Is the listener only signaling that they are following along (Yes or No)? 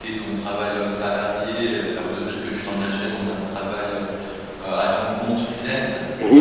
No